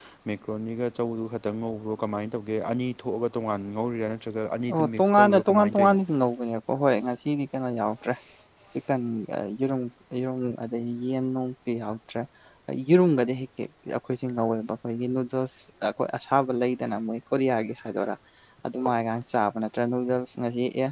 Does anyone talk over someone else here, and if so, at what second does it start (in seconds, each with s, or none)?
4.7 s